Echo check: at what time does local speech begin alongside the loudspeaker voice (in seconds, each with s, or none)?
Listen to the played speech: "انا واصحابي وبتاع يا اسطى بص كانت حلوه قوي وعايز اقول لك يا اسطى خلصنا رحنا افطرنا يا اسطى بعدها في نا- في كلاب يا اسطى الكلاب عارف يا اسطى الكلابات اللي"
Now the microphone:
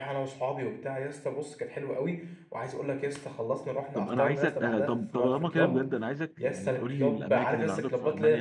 3.9 s